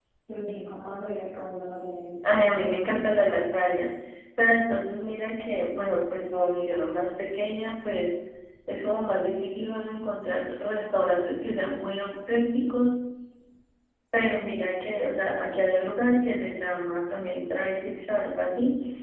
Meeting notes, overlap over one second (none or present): none